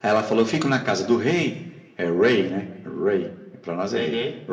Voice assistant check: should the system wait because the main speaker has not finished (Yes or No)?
Yes